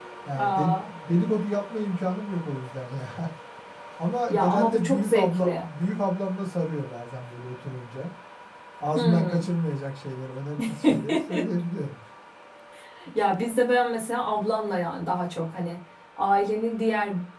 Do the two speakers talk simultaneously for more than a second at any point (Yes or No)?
Yes